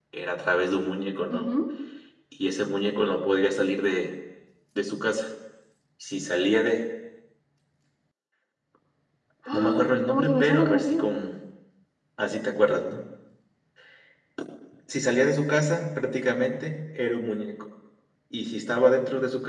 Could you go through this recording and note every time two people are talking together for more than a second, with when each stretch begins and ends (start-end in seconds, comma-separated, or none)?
9.5-11.1